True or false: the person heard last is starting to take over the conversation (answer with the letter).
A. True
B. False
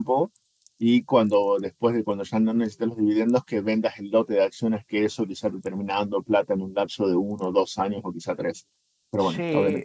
A